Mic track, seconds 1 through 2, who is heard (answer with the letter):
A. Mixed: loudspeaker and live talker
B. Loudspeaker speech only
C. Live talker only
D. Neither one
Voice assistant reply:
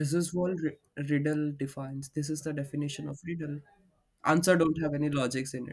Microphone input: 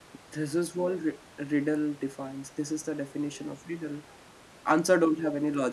B